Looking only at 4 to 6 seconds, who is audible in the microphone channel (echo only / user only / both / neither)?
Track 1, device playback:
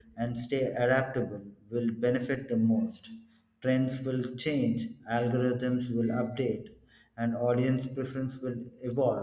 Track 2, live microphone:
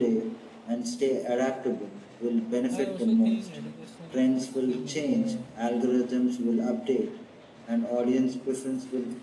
both